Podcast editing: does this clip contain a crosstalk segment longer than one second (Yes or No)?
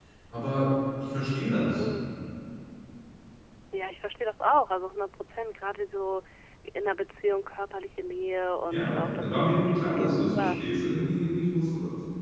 Yes